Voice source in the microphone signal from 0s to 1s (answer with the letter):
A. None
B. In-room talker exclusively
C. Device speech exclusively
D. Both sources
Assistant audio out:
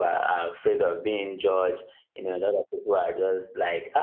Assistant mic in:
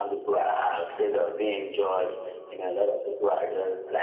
C